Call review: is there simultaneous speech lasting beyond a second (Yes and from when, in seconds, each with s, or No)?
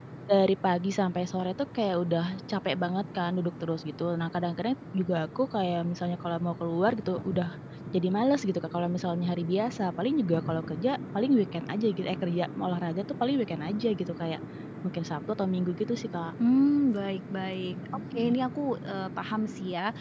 No